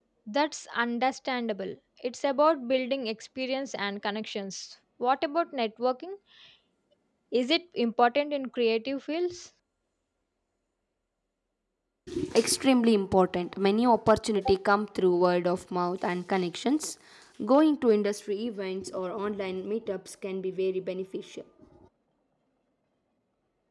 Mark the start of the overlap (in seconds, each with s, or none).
none